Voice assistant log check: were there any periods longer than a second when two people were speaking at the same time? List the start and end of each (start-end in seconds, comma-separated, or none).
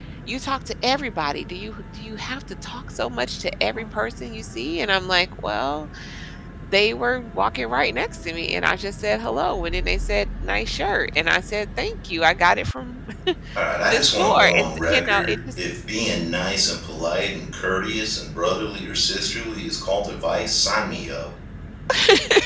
13.8-15.6